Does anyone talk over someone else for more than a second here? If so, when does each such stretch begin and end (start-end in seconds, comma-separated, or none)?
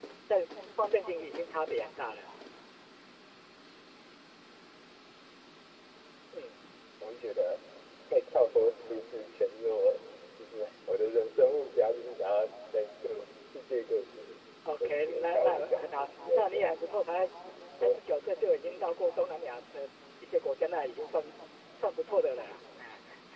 14.8-16.6